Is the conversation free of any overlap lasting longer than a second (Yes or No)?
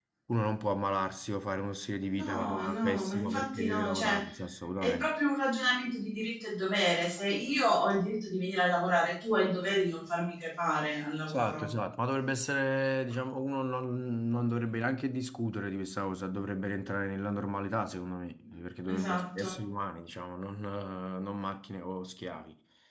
No